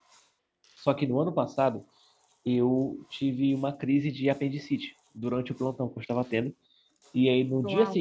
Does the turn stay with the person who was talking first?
Yes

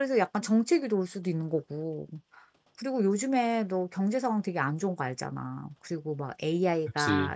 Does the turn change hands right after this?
No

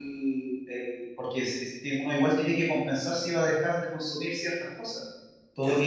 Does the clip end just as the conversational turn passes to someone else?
No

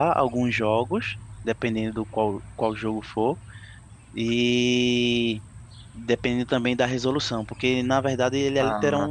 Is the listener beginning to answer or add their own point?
No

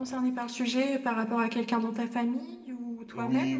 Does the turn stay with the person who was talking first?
No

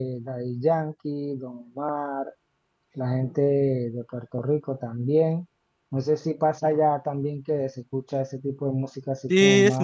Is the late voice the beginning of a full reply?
Yes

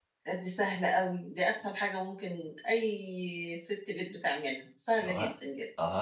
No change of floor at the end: No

